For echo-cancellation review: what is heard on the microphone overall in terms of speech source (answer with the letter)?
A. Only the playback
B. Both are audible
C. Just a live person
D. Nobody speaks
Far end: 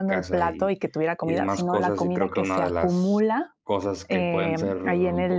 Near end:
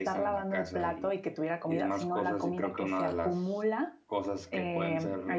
A